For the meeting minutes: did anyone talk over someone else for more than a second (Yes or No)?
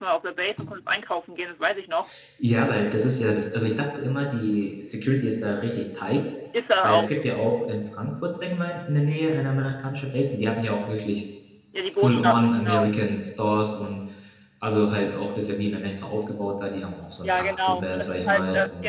Yes